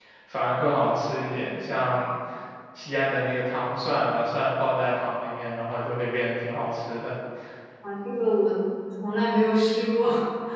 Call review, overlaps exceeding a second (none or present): none